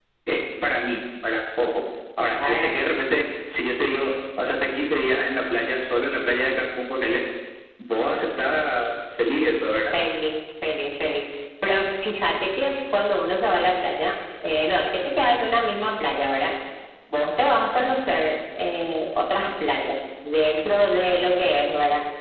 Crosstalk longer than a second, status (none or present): none